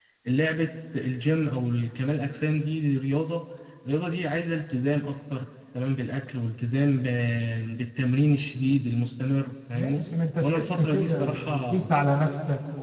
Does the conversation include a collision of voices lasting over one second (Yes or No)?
Yes